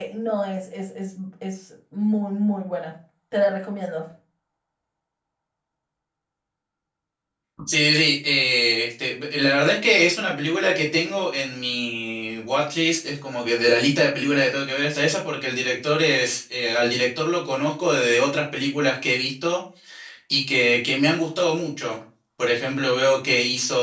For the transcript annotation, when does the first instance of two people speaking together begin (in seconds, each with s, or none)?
none